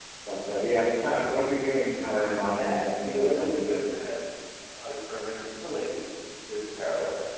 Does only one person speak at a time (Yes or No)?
No